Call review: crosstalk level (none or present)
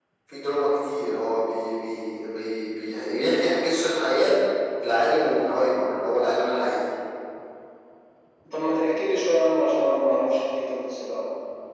none